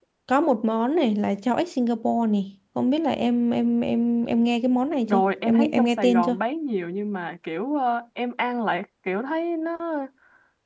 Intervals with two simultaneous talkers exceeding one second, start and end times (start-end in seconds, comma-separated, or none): 5.1-6.4